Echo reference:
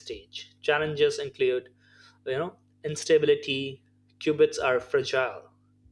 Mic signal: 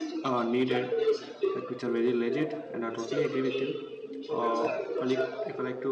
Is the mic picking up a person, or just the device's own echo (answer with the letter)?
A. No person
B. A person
B